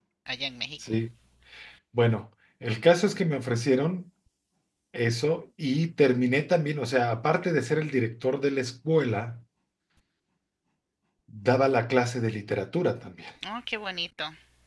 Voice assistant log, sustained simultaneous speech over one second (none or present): none